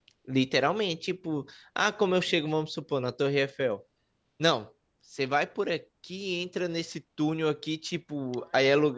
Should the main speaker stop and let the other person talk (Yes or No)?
No